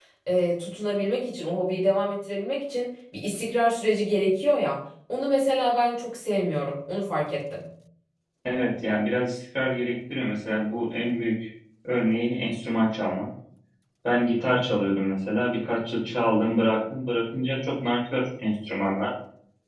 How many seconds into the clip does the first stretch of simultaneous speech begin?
none

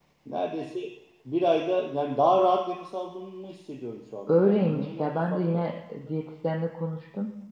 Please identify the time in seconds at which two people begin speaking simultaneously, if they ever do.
4.3 s

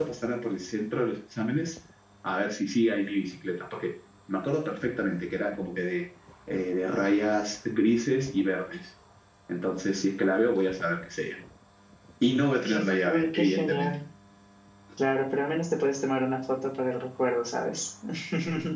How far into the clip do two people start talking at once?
12.7 s

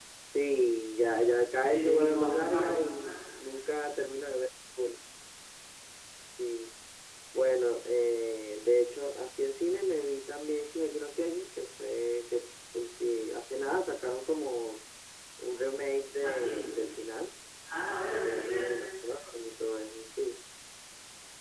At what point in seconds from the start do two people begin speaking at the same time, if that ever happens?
1.6 s

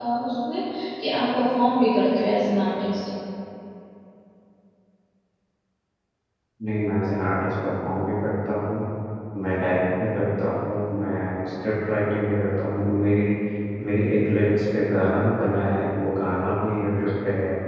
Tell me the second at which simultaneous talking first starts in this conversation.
none

